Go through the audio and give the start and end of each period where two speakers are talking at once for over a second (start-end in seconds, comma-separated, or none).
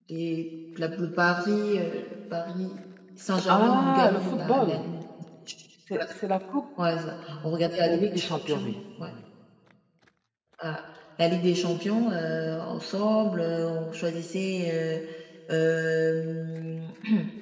3.5-4.8, 7.8-9.1